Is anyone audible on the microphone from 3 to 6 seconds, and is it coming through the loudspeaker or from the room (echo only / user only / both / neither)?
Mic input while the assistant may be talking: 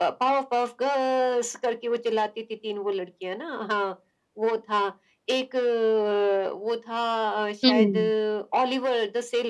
echo only